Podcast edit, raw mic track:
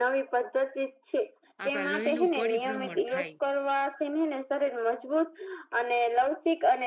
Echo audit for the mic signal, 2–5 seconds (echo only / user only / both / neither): both